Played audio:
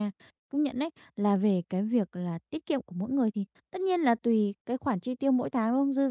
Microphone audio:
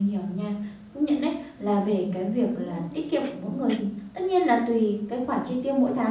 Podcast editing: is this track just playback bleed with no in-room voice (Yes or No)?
No